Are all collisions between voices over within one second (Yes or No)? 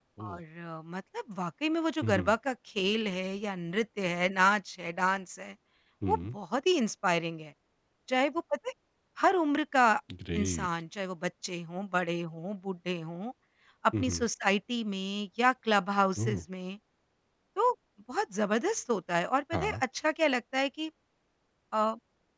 Yes